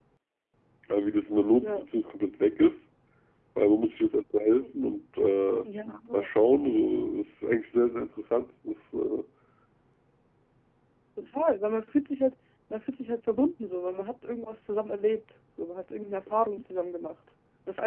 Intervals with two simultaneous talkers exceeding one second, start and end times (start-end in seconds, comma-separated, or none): none